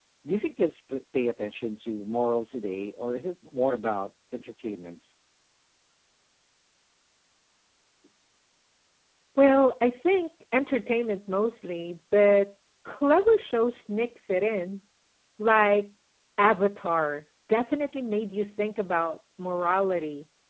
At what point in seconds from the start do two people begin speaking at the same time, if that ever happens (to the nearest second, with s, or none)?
none